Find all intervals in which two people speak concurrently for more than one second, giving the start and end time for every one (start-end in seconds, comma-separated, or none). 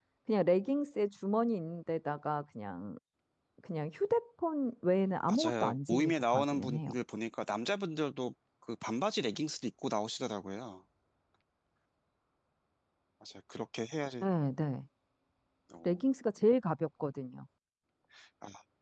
5.3-6.9